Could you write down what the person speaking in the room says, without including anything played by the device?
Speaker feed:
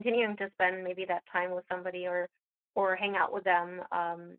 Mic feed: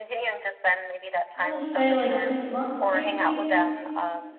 I'm gonna say like six months, maybe,

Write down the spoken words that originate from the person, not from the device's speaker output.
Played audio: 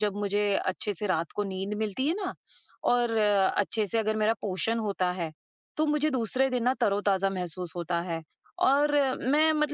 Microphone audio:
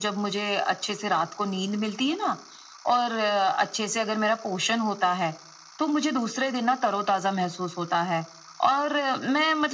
none

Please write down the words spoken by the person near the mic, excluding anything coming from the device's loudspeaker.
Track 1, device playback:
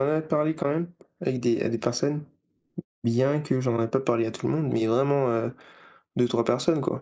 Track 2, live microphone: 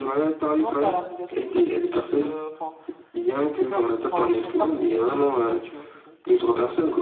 non, pas à la roulette russe, mais juste, heu, enfin, c'est comme enfin, j'aime pas prouver les choses aux gens, tu vois? Donc, heu,

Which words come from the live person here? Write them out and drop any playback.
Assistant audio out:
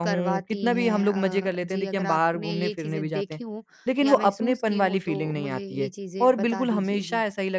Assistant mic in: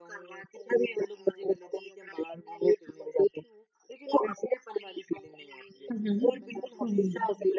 हुँ, हुँ। हुँ, हुँ।

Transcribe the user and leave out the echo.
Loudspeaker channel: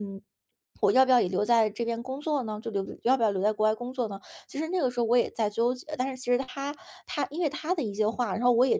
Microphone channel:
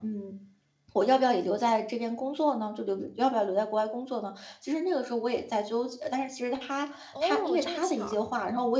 哦，这么巧。

